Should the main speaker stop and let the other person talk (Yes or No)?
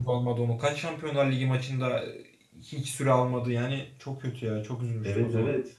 Yes